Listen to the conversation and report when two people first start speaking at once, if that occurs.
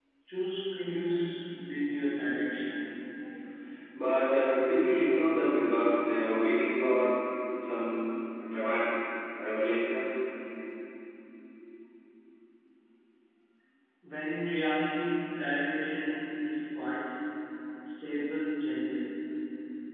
none

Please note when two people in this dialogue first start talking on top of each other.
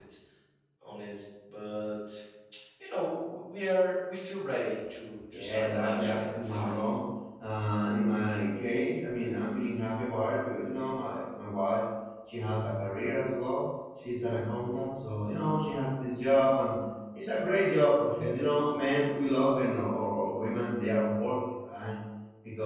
5.3 s

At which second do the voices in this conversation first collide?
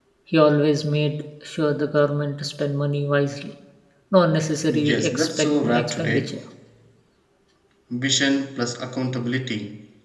4.9 s

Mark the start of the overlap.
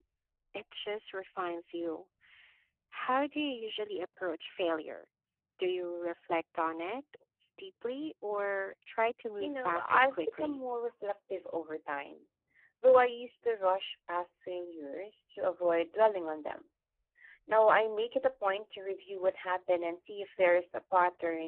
9.4 s

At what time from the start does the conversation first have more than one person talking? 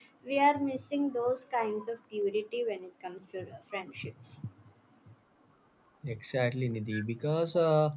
none

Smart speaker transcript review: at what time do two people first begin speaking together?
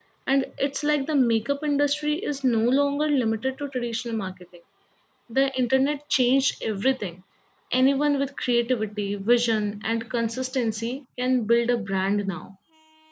none

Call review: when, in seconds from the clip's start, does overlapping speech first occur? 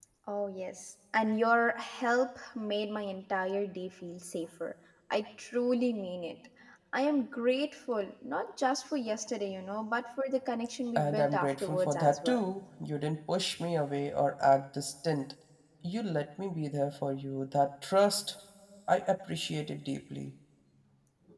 10.9 s

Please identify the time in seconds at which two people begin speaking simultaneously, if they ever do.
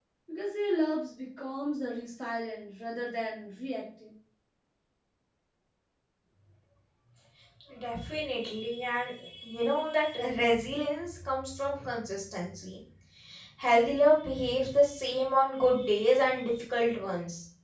none

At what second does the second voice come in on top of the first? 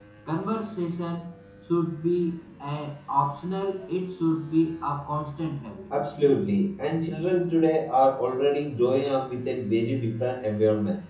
none

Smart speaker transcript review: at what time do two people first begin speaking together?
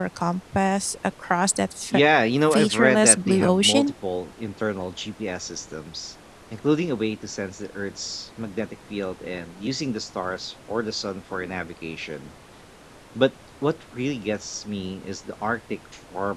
2.5 s

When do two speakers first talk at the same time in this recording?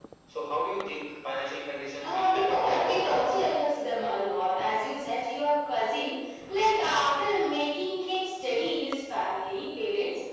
2.0 s

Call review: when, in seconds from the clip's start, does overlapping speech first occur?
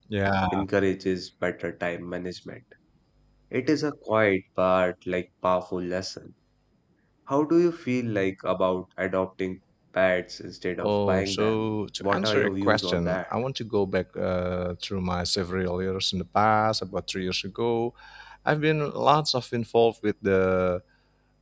10.8 s

